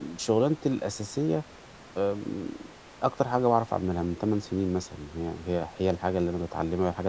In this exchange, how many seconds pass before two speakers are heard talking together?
none

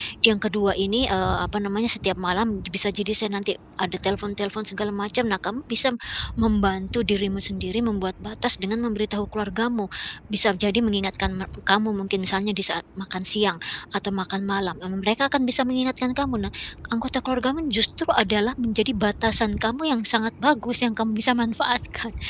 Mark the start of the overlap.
none

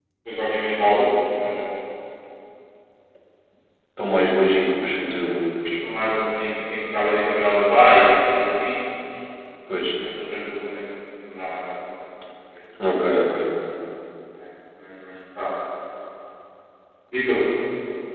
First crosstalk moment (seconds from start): none

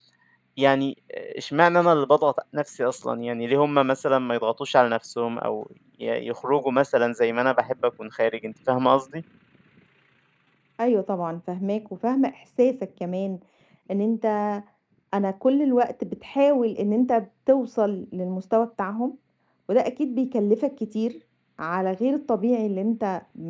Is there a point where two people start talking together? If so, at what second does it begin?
none

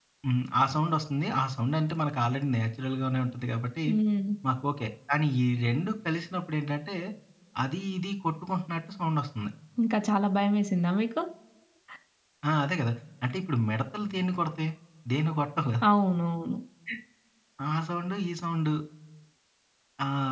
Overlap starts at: none

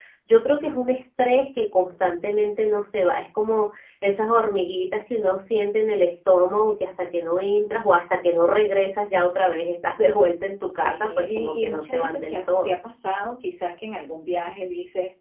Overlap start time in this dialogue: 10.7 s

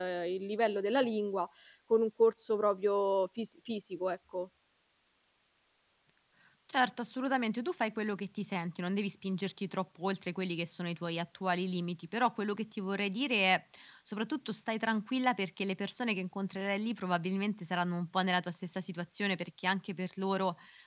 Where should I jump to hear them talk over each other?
none

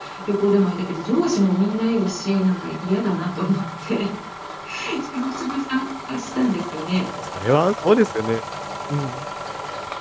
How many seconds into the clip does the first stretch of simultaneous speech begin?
none

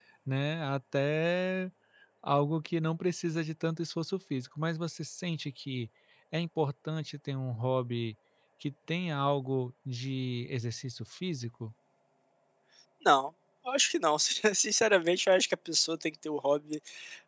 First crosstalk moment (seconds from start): none

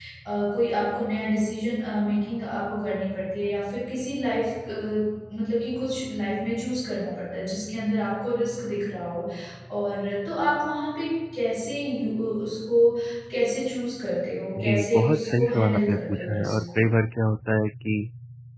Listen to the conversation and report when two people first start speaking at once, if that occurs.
14.6 s

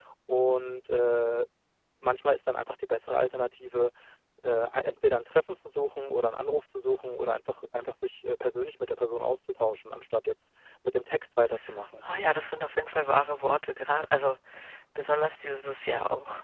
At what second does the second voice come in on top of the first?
none

